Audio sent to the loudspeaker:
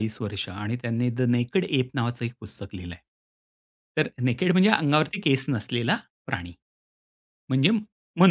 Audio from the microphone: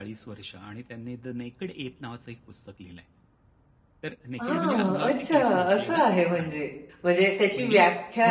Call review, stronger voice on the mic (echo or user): user